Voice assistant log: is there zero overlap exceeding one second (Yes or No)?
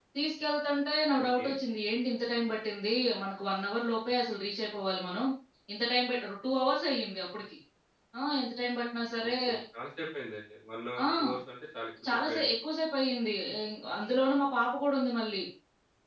Yes